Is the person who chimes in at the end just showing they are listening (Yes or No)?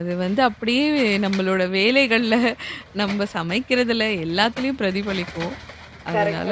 No